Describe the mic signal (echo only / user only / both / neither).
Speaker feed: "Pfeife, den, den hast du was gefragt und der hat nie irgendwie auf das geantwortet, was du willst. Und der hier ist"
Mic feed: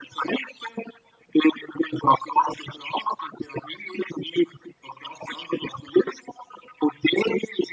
echo only